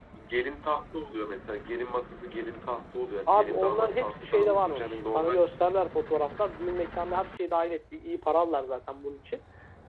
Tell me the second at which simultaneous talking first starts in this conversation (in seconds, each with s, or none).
3.3 s